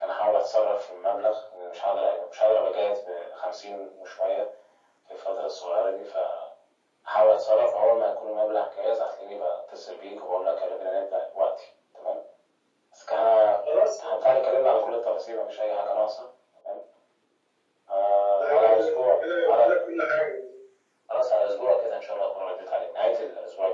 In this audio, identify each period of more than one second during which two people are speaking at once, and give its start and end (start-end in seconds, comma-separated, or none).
18.4-19.8